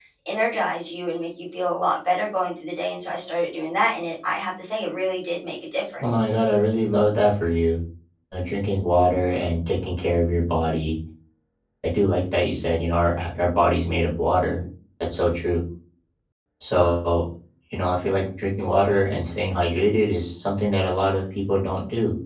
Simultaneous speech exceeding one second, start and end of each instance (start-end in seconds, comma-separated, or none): none